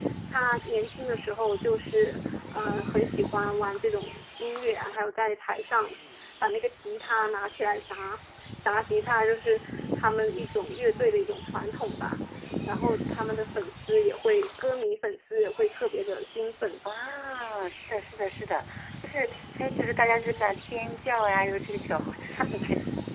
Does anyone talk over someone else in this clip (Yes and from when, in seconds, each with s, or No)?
No